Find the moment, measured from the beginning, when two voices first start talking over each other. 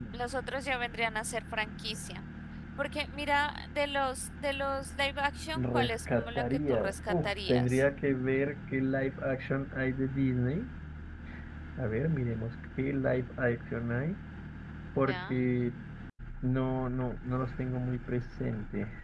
6 s

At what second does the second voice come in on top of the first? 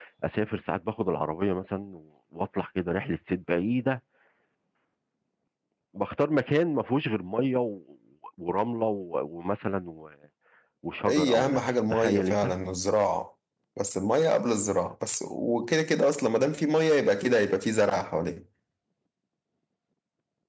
11 s

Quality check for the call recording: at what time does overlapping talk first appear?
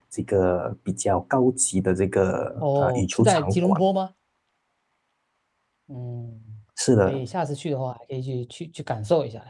3 s

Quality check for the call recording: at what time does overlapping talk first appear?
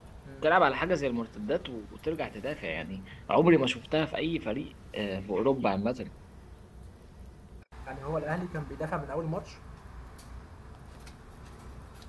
none

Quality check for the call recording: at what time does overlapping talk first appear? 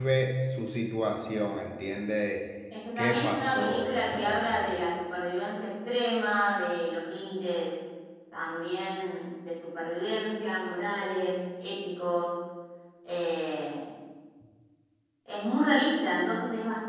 3 s

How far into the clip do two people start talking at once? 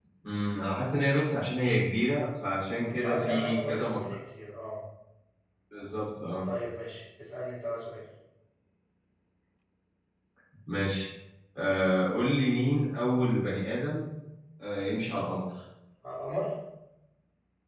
3 s

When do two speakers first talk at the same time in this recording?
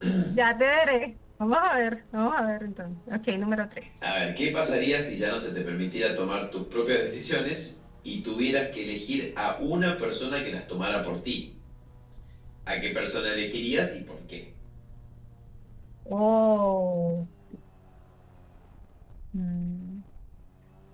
none

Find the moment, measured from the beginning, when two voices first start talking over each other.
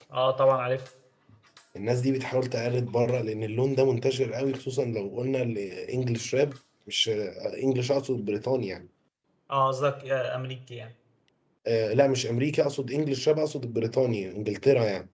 none

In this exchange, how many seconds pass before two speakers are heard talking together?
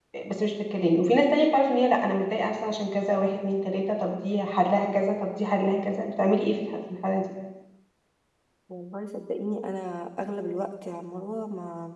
none

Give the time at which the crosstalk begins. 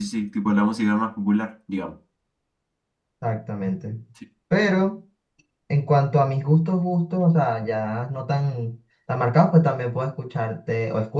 none

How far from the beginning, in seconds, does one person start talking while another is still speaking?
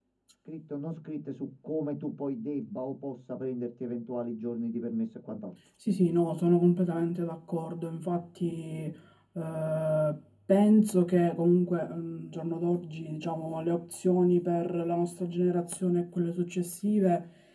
none

